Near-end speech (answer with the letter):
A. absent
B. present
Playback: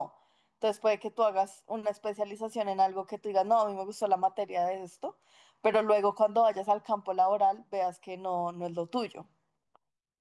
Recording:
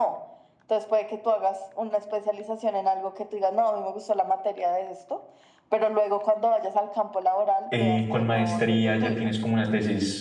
B